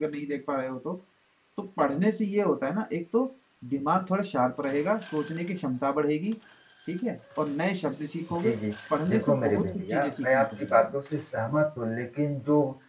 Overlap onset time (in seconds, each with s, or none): 9.1 s